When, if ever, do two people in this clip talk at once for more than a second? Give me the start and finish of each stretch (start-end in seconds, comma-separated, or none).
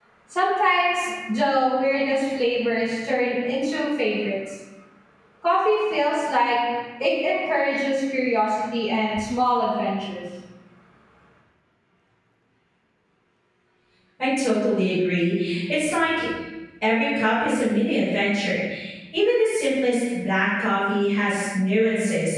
none